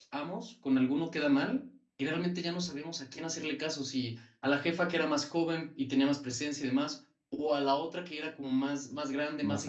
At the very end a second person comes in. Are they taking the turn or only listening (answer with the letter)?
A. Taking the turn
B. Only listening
B